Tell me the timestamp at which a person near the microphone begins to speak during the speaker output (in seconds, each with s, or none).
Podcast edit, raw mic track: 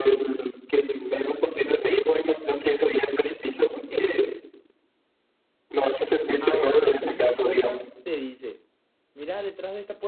6.4 s